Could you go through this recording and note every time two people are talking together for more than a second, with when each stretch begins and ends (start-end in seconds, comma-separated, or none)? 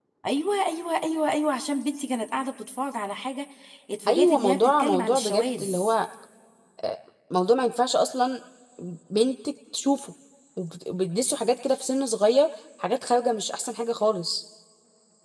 4.1-5.7